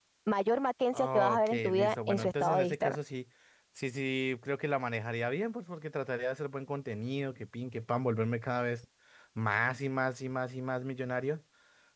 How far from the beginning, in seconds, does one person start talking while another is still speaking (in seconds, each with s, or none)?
0.9 s